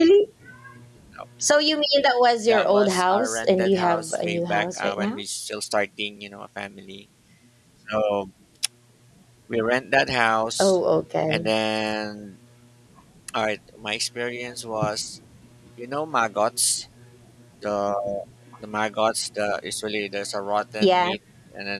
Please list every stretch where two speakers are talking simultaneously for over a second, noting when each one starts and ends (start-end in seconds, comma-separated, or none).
2.5-5.2